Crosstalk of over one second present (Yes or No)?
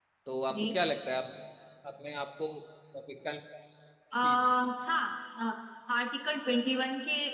No